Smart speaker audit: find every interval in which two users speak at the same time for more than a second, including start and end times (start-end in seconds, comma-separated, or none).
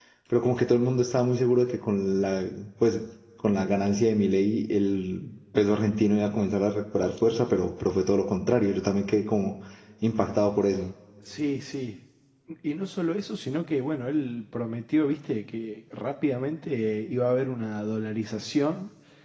none